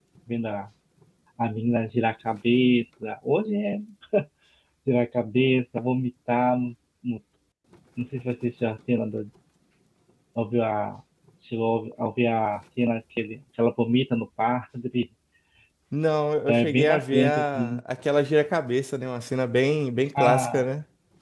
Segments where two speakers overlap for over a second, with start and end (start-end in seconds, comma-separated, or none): 16.5-17.8